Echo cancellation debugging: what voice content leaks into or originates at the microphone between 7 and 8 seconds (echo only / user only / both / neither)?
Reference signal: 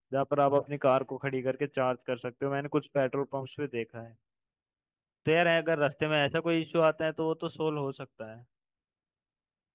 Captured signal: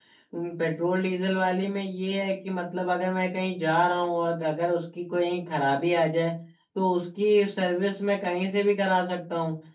user only